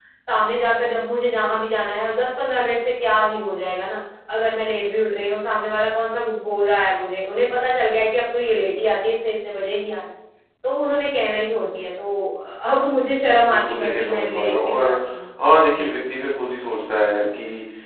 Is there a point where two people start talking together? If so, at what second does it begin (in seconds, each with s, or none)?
13.5 s